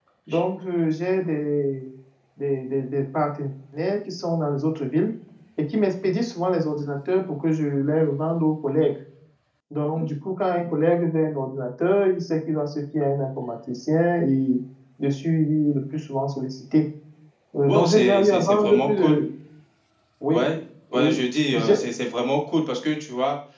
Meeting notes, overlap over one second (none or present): present